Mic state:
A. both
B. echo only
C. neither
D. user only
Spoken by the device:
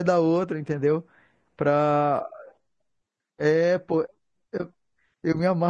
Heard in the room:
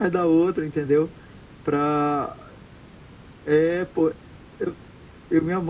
B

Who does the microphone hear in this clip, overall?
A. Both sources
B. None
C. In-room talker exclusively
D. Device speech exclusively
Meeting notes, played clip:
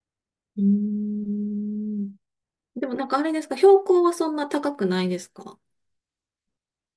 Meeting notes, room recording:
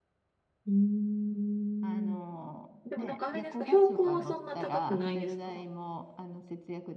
A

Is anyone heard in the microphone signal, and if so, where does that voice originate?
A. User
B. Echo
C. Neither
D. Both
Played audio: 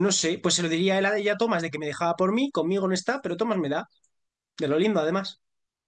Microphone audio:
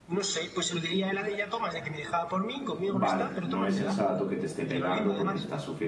D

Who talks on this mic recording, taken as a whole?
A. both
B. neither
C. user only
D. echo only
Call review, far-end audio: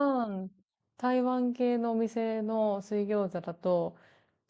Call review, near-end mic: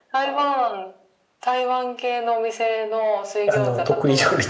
A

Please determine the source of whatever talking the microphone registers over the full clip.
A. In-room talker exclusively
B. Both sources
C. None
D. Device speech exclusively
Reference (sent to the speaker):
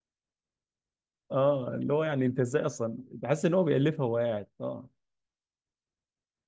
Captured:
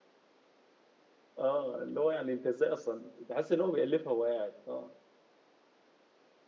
D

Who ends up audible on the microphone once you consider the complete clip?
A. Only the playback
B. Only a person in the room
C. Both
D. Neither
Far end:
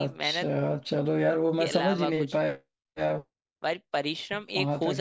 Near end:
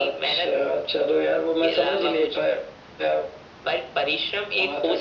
A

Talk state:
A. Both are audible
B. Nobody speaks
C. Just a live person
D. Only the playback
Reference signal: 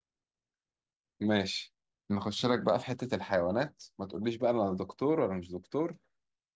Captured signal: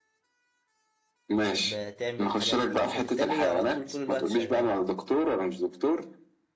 A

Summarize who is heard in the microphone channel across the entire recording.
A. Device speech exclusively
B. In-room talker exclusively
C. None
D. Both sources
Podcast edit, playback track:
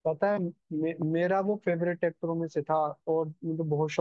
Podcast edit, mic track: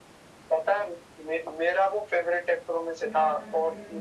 D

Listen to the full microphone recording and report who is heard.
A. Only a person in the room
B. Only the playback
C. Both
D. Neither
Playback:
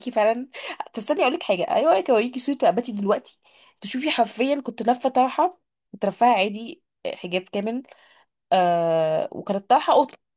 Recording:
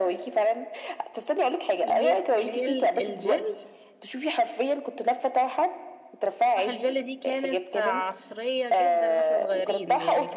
C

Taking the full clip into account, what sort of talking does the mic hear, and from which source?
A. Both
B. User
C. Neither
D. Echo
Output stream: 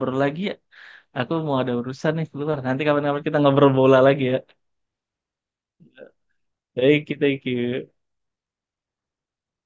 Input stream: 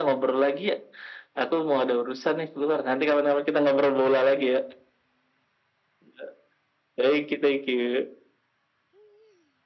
D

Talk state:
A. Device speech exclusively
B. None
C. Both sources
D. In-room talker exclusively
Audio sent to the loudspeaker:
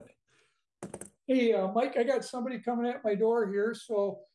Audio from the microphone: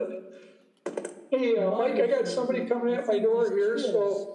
C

